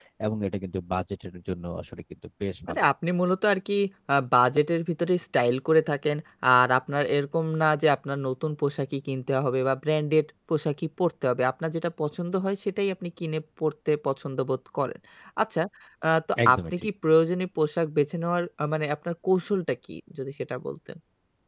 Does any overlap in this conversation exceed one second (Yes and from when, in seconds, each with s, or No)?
No